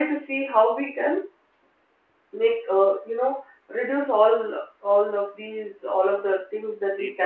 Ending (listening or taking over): listening